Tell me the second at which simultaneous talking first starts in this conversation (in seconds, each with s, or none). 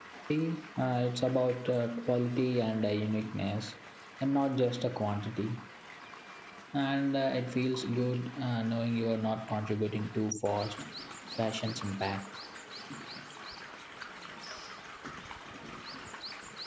none